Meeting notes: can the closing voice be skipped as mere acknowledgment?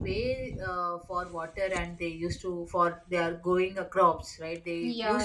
Yes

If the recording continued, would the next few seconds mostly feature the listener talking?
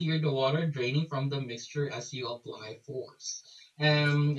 No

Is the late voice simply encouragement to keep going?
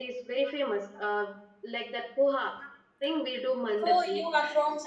No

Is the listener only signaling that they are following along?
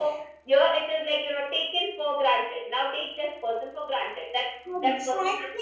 No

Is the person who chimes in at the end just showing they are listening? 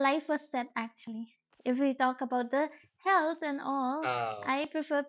Yes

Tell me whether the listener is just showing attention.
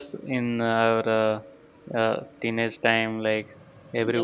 No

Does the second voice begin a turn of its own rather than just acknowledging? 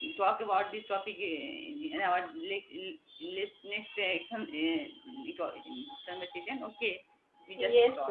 Yes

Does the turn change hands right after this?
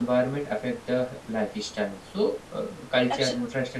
No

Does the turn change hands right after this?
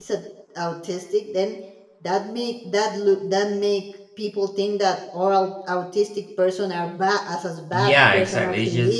Yes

